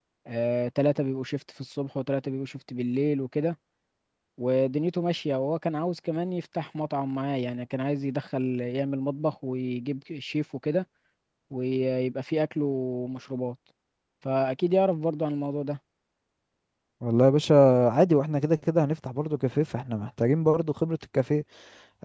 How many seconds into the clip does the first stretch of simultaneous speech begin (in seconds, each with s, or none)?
none